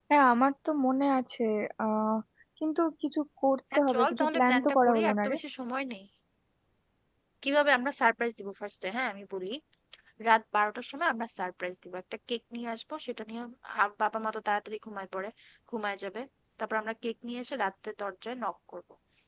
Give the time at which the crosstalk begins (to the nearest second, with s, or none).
4 s